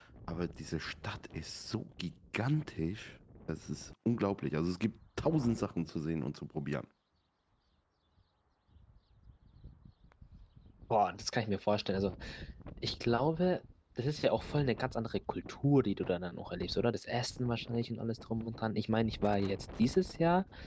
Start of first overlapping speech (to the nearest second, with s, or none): none